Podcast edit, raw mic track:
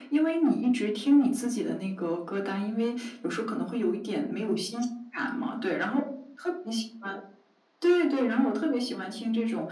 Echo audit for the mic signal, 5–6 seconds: echo only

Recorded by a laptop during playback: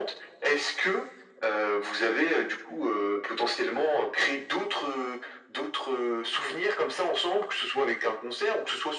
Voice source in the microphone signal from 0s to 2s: echo only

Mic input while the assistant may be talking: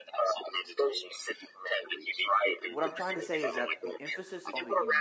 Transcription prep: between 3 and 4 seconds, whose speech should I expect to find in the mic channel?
both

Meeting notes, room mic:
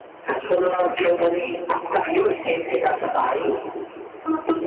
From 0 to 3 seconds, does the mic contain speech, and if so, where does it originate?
echo only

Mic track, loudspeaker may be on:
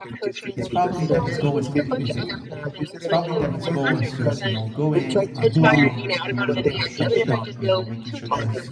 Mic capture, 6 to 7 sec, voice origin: both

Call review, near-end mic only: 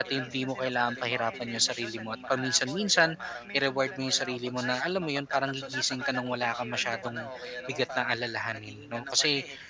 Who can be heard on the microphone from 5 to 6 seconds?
both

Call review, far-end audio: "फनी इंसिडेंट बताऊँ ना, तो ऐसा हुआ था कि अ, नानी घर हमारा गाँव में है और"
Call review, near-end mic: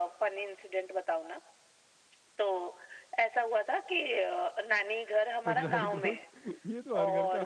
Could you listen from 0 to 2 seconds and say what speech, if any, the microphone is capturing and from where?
echo only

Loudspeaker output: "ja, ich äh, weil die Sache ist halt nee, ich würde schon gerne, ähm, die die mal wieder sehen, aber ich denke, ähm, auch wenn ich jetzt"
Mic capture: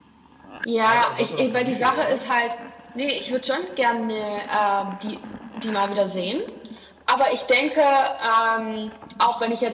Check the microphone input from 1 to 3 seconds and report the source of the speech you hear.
both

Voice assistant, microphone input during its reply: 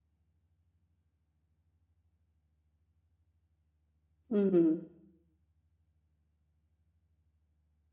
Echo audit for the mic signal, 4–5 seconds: user only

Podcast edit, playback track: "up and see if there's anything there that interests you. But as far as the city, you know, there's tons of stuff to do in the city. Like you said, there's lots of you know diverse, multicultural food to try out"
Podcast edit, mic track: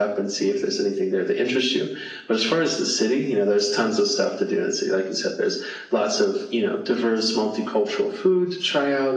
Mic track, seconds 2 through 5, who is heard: echo only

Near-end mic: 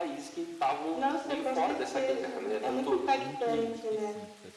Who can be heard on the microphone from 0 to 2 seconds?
echo only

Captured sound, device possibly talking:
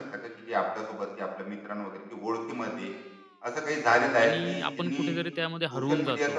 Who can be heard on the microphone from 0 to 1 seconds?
echo only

